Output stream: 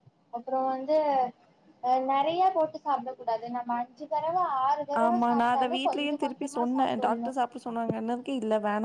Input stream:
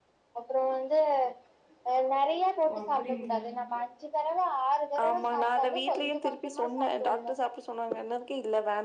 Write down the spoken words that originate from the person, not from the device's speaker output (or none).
ஓ! அப்டிங்களா?